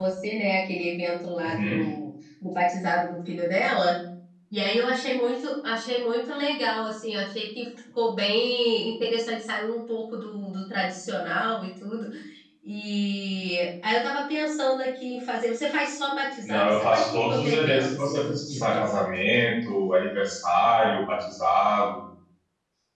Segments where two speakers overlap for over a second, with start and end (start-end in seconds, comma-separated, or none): 16.4-19.0